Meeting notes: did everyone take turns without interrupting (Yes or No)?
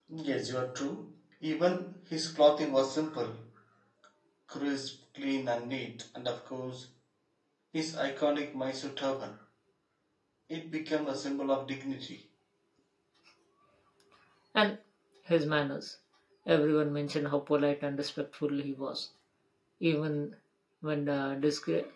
Yes